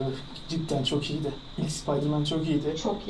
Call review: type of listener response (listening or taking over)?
listening